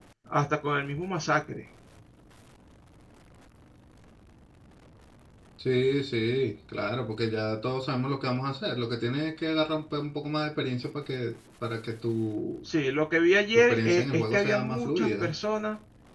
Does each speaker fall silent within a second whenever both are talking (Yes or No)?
No